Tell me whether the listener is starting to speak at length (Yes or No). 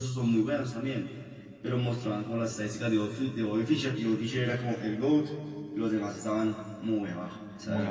Yes